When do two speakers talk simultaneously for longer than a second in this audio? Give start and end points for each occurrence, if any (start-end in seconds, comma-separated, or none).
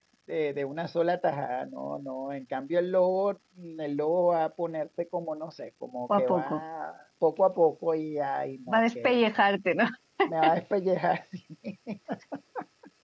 none